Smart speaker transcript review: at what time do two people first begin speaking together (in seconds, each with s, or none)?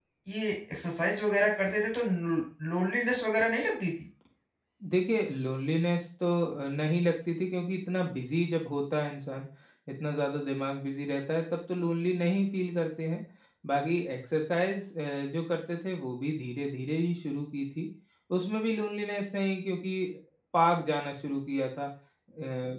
none